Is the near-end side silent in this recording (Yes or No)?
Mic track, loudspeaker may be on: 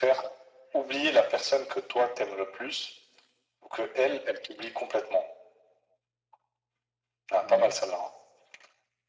No